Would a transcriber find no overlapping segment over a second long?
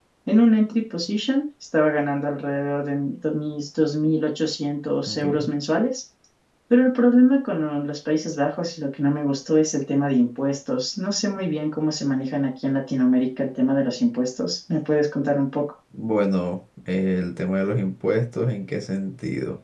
Yes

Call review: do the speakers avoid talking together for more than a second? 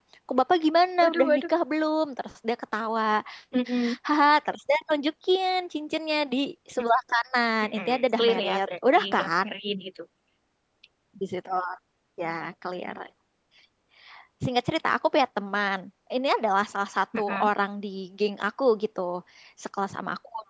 No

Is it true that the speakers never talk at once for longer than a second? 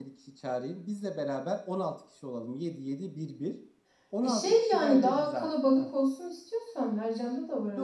No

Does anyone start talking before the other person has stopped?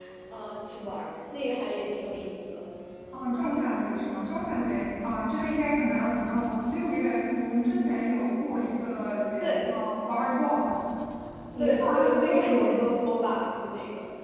Yes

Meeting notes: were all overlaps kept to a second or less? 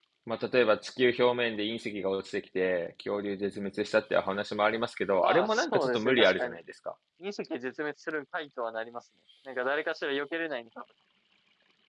No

